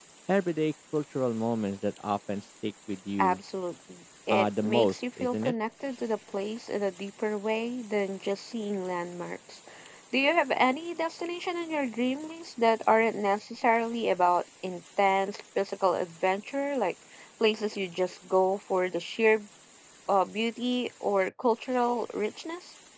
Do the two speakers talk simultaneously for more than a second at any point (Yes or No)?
Yes